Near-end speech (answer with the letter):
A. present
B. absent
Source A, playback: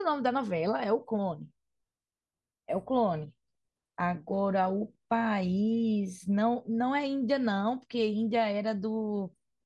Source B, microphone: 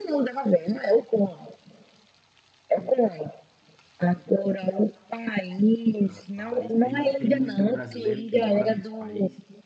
A